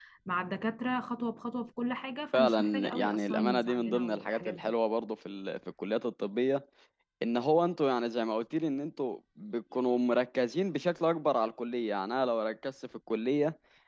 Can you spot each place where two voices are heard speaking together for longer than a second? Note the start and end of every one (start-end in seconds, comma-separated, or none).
2.3-4.7